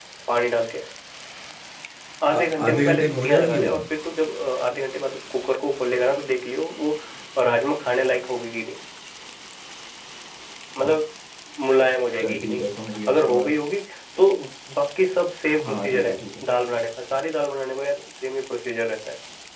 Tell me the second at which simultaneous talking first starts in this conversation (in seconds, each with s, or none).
2.4 s